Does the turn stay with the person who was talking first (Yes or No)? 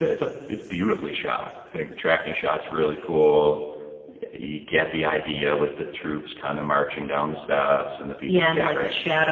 No